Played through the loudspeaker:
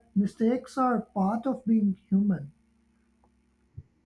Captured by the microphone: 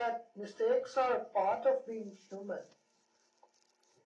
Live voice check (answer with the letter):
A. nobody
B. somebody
A